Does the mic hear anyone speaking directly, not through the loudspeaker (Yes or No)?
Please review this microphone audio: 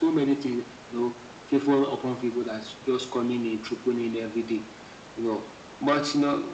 No